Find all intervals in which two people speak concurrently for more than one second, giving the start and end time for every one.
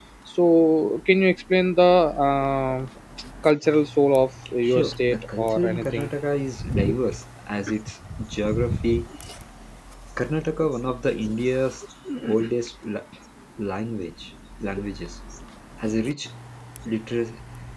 4.6-6.1

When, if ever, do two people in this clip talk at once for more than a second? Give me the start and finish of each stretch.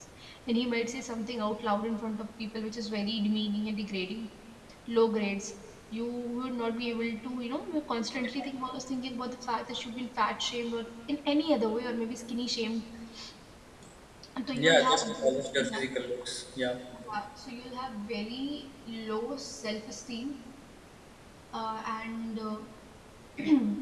14.5-15.8

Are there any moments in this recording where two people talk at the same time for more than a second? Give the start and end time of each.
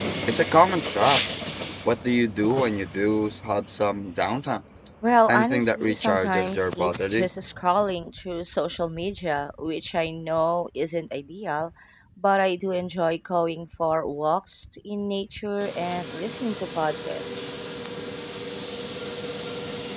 5.3-7.3

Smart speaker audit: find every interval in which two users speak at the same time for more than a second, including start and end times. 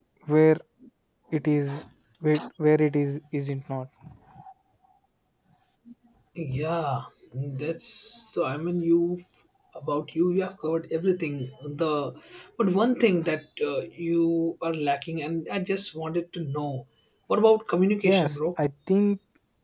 none

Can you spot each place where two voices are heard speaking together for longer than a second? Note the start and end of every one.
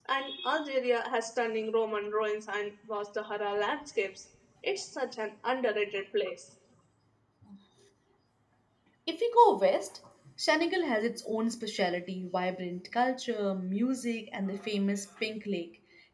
none

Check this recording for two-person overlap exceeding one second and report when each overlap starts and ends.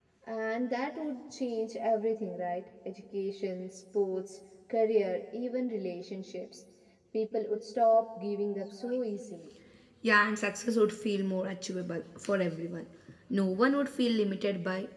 none

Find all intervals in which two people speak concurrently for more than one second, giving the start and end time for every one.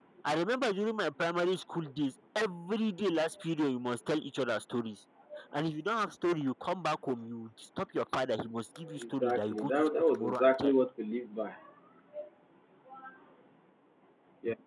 9.0-10.7

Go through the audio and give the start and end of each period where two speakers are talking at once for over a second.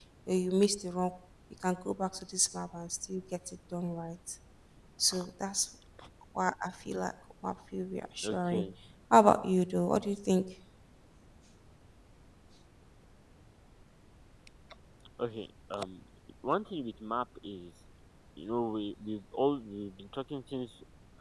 none

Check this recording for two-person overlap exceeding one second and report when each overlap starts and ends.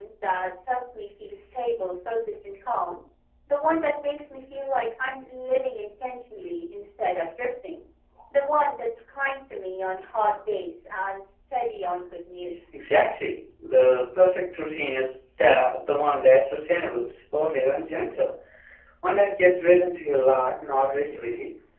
none

